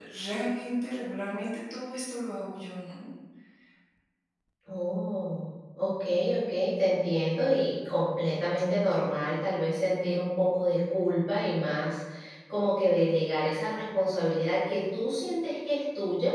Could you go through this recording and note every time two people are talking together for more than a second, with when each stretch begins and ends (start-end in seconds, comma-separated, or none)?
none